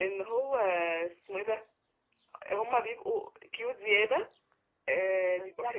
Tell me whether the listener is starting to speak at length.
No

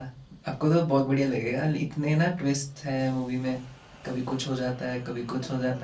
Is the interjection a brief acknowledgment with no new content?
Yes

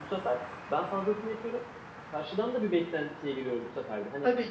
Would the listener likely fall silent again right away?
Yes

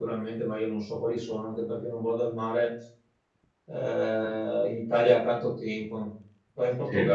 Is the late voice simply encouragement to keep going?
Yes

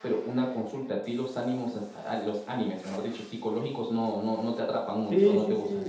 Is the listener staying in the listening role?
No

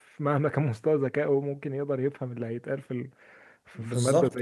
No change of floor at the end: No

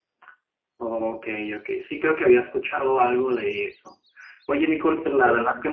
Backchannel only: Yes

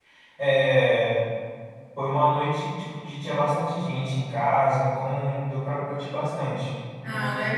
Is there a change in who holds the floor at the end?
Yes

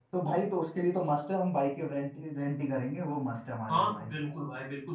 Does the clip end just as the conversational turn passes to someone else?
Yes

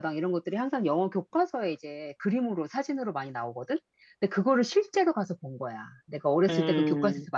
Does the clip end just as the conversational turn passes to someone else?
No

